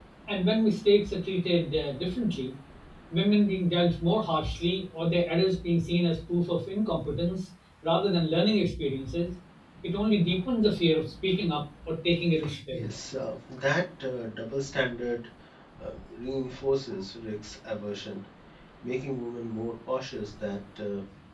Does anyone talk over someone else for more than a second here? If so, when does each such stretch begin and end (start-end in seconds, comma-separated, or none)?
none